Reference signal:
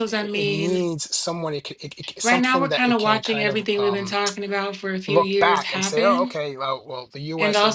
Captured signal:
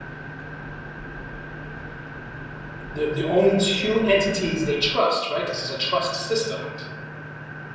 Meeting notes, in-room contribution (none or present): present